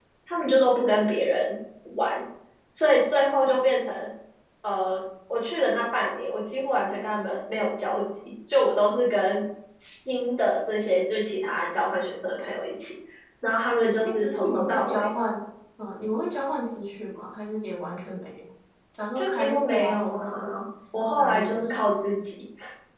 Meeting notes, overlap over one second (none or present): present